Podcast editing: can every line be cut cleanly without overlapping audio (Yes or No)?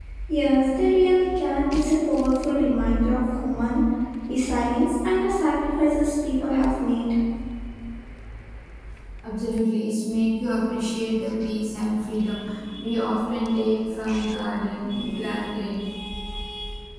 Yes